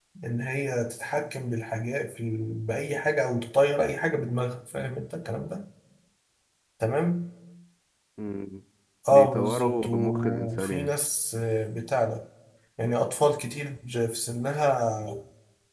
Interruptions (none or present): present